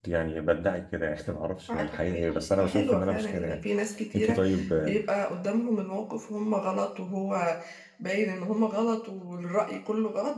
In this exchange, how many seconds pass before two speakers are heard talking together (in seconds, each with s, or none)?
1.7 s